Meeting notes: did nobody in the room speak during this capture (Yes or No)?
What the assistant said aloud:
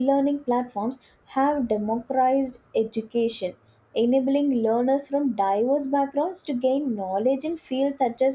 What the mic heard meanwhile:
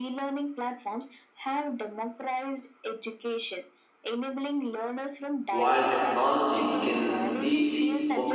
No